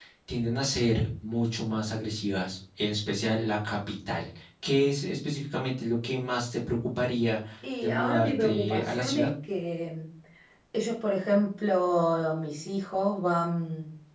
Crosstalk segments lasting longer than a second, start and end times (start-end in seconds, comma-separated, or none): 7.8-9.3